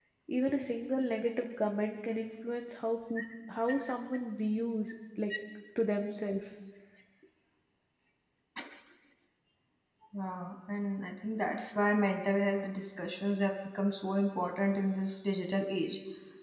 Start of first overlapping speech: none

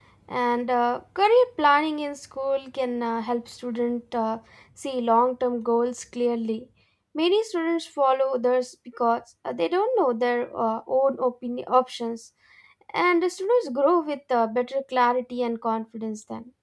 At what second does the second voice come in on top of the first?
none

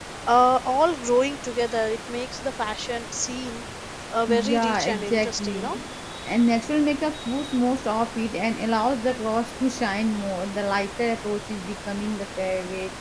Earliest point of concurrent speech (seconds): 4.3 s

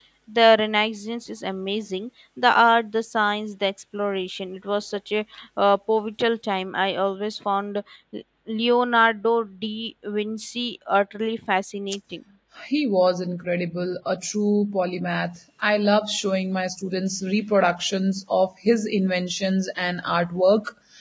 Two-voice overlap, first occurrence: none

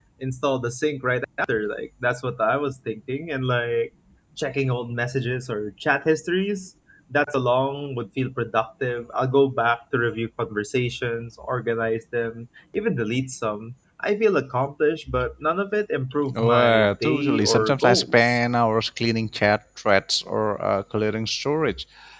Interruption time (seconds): 16.3 s

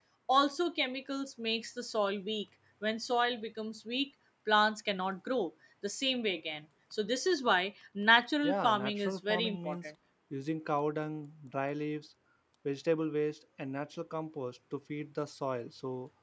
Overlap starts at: 8.4 s

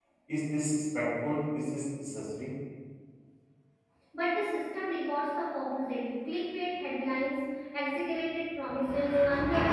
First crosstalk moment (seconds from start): none

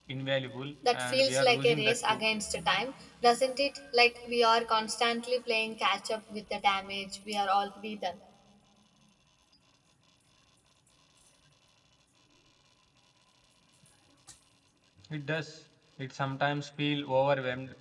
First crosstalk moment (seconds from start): 0.9 s

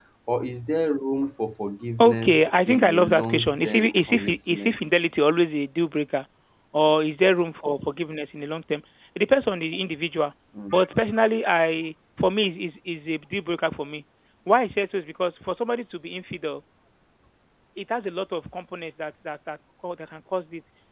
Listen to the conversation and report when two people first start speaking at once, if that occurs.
2.0 s

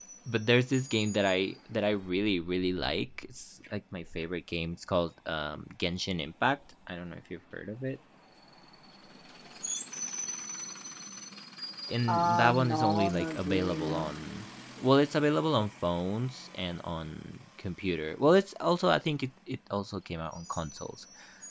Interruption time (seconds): 12.1 s

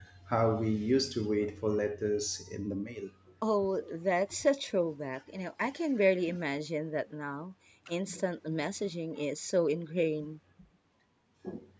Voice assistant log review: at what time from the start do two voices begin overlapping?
none

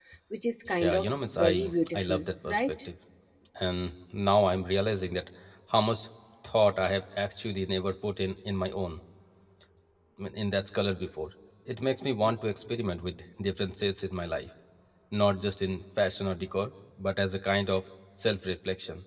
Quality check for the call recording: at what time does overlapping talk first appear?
0.8 s

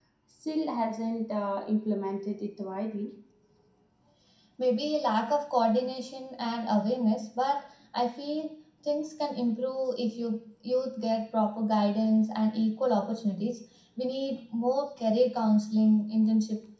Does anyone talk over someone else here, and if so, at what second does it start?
none

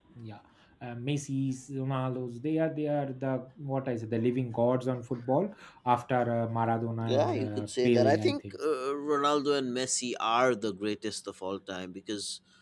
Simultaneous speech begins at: 7.0 s

